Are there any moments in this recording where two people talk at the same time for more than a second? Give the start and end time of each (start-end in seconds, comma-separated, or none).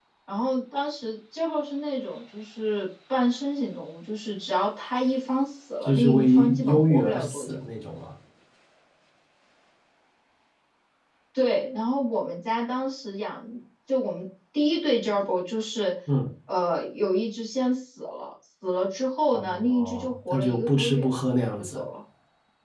5.8-7.6, 19.3-21.1